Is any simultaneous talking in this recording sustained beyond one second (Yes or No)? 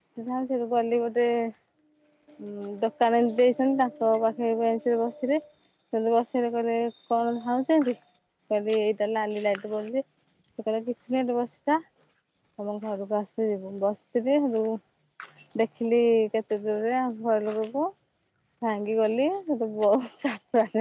No